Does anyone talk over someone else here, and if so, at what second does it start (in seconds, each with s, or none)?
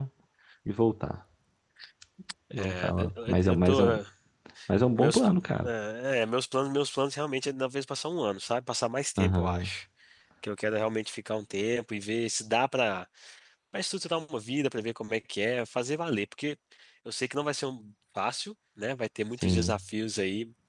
2.6 s